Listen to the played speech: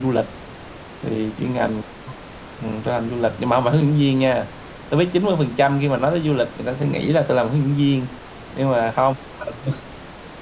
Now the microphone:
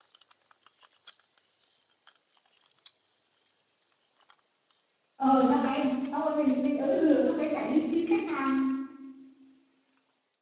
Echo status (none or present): none